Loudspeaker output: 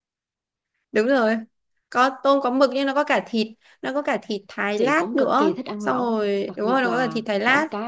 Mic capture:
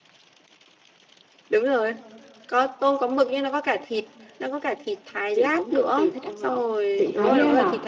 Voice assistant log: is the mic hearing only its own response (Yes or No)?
No